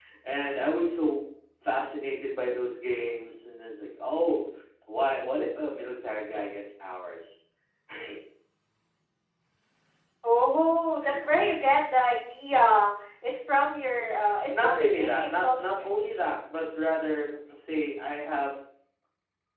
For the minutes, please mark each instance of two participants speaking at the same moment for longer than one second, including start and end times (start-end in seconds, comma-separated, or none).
14.6-16.3